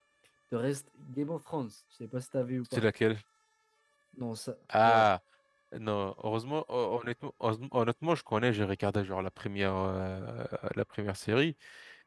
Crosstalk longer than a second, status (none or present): none